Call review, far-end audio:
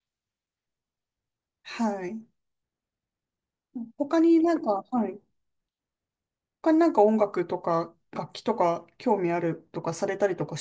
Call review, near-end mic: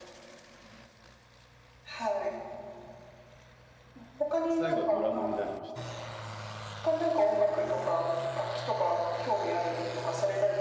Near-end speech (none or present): present